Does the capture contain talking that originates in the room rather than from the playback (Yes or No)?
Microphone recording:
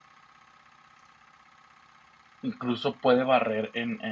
Yes